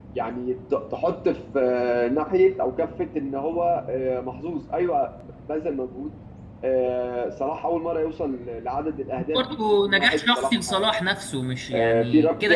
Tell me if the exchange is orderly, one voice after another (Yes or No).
No